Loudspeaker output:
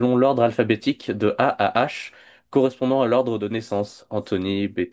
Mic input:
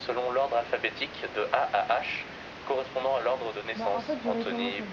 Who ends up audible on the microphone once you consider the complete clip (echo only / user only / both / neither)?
both